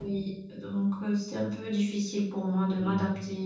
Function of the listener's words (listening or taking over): taking over